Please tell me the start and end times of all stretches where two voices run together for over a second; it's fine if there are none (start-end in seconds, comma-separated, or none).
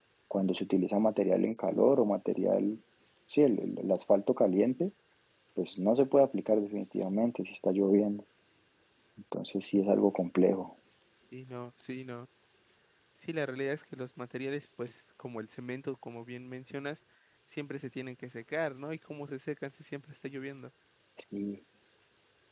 none